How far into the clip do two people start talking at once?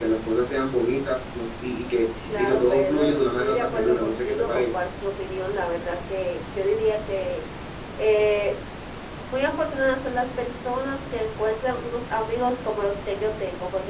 2.3 s

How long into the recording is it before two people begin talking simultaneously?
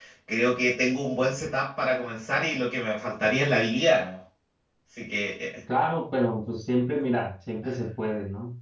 none

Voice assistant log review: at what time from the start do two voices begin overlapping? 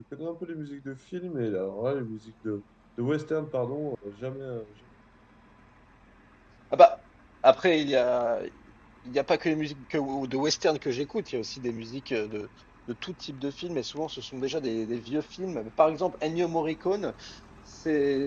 none

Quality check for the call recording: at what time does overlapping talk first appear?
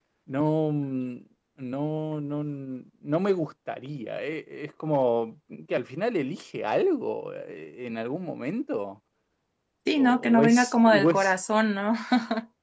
10.0 s

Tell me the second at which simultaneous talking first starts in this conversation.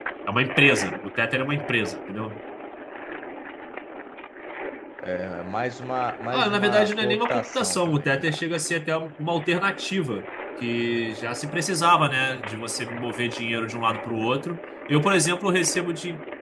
6.3 s

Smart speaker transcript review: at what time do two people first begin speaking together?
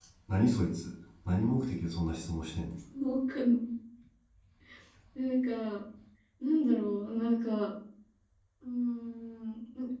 none

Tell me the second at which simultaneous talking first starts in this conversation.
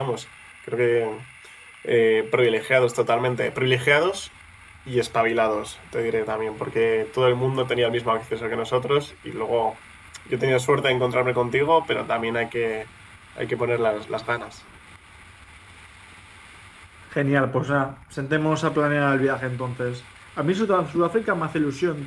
none

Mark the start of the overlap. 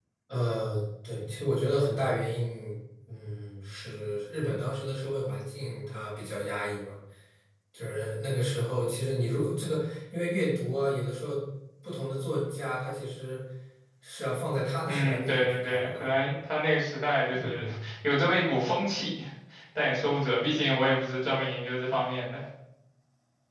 14.9 s

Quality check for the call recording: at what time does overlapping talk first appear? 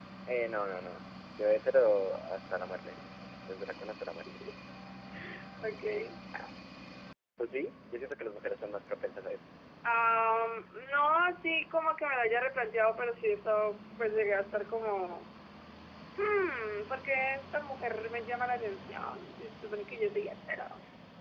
none

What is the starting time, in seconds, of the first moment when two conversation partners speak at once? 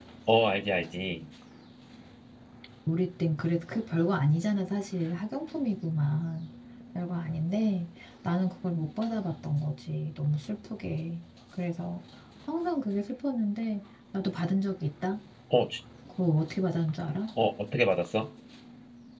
none

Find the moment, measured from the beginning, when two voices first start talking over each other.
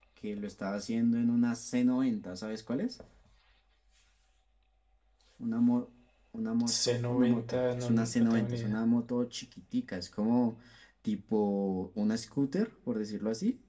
6.7 s

